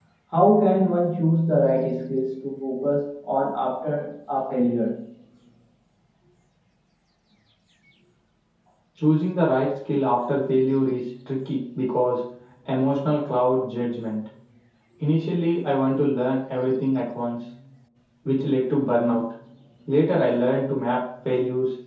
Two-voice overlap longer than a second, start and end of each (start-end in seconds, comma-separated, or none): none